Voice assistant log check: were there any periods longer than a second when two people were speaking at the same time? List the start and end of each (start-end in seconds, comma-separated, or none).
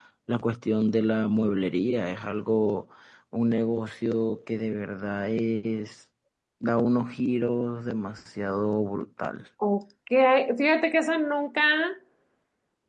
none